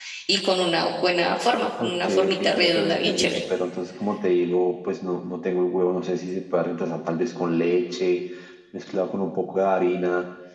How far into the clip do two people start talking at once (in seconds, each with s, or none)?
1.8 s